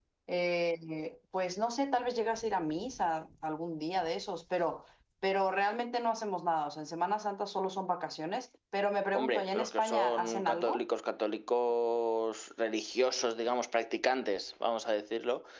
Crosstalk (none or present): present